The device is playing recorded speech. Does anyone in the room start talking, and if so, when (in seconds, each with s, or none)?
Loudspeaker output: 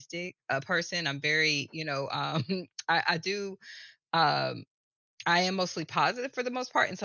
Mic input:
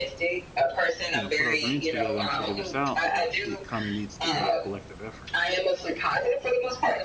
1.1 s